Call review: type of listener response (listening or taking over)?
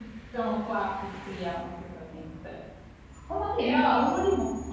listening